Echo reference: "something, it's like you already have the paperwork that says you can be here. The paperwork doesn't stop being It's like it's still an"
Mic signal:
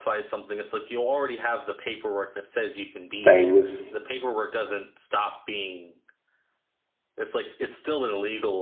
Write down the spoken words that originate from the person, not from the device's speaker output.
things.

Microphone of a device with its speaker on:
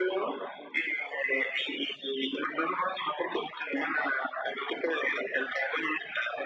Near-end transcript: none

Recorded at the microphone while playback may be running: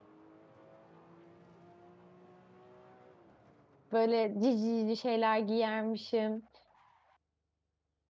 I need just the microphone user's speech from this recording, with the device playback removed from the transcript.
Böyle cici cici şeyler giyermişim.

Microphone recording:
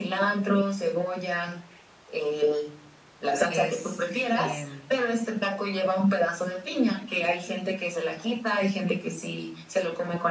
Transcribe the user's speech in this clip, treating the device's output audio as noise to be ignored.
es, em,

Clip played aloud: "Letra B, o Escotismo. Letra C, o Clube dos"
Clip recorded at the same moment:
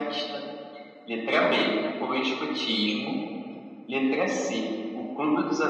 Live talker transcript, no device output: ouro, né?

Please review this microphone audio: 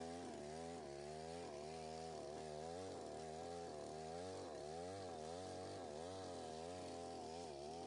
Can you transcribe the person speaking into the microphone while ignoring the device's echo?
none

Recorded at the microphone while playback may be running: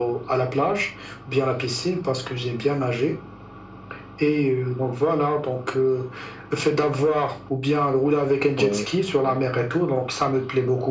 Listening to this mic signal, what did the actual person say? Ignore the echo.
Ouais, ouais.

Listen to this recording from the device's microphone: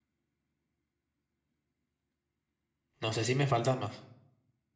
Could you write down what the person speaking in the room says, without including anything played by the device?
No sé si me faltan más.

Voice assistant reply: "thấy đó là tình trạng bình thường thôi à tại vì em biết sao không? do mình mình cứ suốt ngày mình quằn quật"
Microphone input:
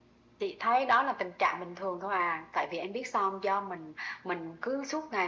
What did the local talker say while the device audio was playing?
none

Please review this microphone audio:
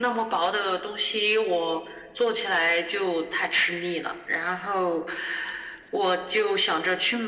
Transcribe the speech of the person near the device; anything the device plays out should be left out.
none

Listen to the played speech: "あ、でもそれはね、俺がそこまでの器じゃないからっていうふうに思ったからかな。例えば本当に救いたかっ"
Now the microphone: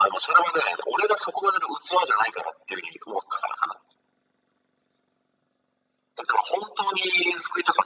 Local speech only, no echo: none

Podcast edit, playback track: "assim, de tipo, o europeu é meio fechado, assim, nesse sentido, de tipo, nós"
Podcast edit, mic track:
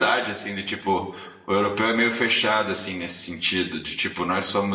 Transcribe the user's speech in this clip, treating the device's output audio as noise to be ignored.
none

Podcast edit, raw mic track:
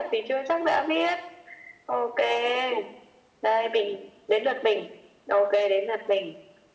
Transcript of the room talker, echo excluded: none

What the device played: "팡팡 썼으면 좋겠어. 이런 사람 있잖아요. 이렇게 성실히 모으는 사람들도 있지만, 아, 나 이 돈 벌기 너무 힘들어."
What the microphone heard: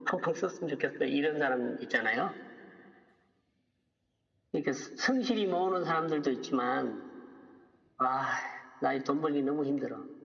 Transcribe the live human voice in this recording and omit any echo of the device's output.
none

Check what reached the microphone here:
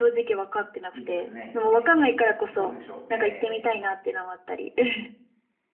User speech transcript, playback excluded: いいですね。えー、どうでしょう。えー、

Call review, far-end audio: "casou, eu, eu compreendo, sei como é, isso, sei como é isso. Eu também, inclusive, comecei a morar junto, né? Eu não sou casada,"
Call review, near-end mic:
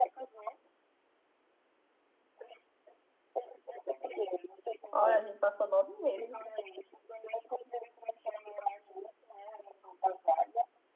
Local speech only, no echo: Olha, a gente passou nove meses.

